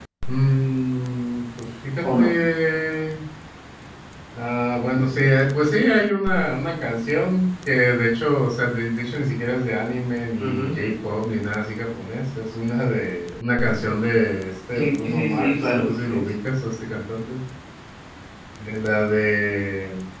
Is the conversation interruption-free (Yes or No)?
No